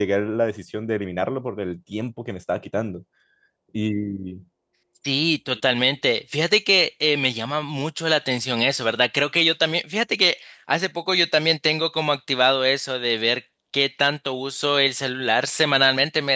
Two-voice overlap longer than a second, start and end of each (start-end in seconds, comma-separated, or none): none